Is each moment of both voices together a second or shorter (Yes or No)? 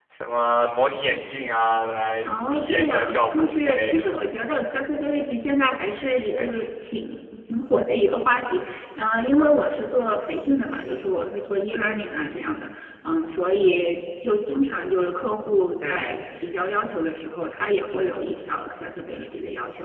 No